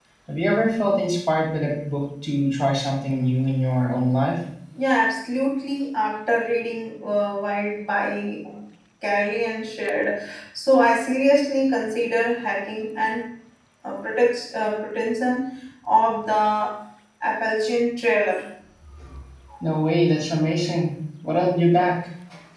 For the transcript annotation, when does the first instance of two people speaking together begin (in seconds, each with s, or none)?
none